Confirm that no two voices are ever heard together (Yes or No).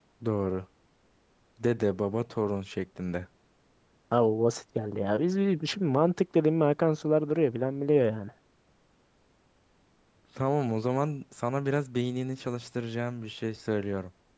Yes